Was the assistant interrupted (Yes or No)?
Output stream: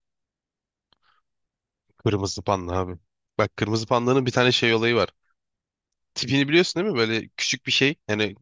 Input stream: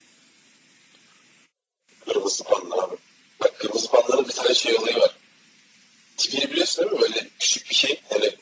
No